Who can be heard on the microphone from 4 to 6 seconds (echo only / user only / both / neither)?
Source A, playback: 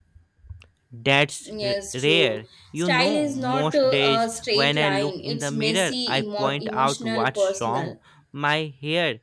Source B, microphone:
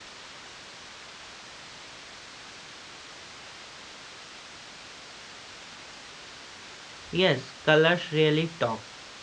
neither